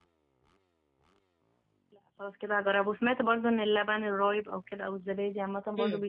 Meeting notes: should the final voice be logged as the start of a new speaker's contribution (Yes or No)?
Yes